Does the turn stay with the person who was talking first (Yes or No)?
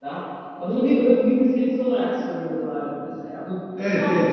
No